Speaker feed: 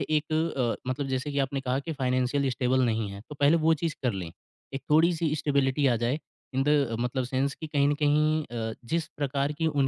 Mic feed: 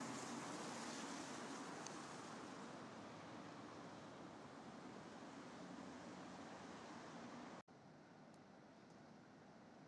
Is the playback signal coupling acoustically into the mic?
No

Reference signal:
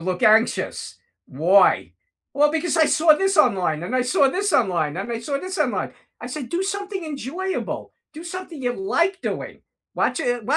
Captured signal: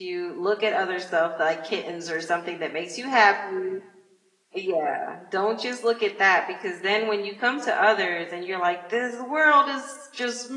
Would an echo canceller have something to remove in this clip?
No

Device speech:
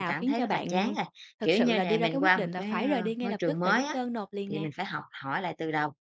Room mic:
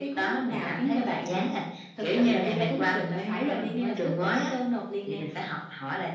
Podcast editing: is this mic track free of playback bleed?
No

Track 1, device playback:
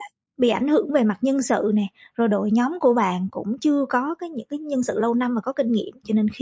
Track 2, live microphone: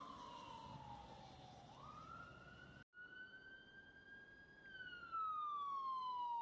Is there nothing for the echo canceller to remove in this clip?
Yes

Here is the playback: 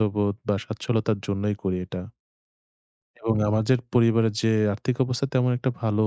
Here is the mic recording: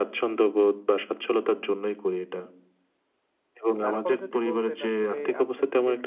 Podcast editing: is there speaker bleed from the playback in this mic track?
Yes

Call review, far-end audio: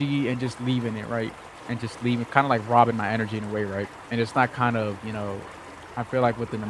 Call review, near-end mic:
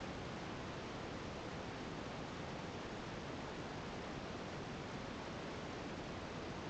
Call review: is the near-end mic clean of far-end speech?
Yes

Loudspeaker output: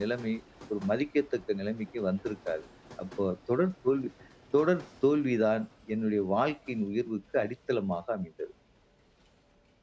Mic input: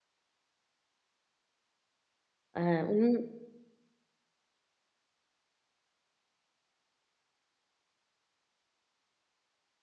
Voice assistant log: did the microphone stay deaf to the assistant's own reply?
Yes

